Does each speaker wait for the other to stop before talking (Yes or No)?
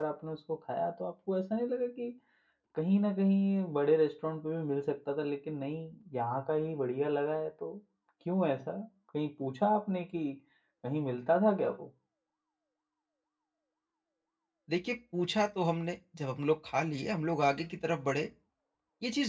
Yes